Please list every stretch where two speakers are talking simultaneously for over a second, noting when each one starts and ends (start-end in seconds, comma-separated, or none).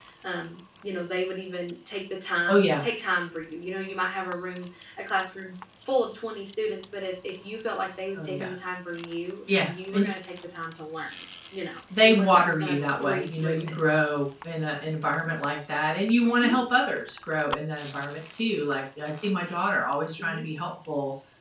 12.0-13.8